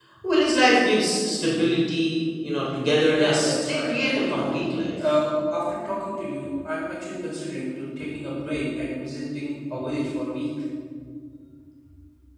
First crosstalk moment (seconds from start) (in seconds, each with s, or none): 3.1 s